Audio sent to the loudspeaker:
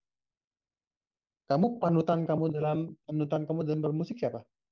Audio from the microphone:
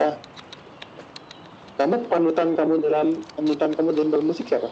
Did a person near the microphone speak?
No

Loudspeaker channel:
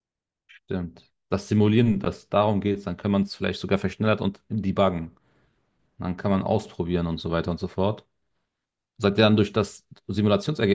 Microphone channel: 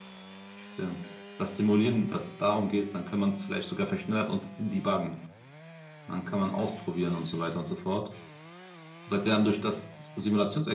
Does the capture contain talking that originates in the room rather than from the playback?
No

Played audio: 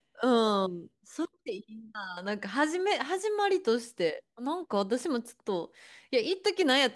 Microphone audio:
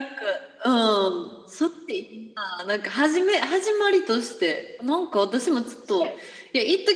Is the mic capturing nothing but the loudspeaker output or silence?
No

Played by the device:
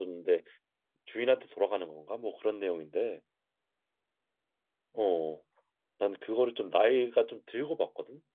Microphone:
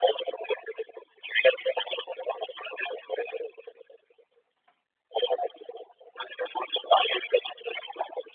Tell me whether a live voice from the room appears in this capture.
No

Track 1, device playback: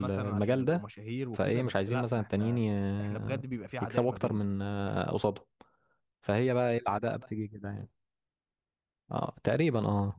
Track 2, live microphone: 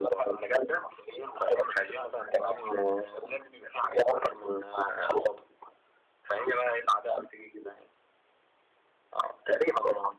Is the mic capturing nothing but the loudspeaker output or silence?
Yes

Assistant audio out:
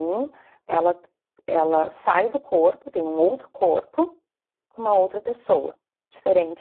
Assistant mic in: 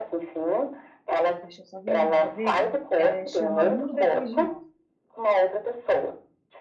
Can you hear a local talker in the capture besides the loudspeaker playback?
Yes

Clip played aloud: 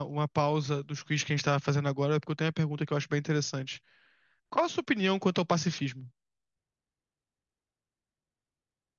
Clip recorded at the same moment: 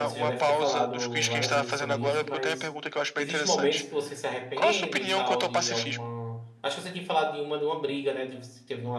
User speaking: Yes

